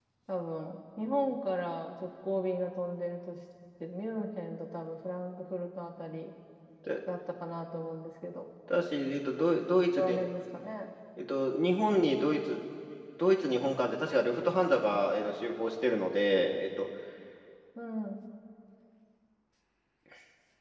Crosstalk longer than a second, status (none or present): none